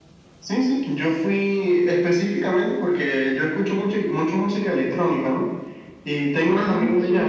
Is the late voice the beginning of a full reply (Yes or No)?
No